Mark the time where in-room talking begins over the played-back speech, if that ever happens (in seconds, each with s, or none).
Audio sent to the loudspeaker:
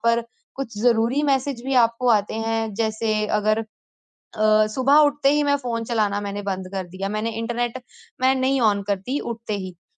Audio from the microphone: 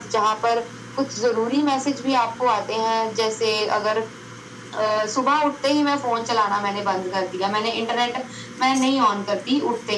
none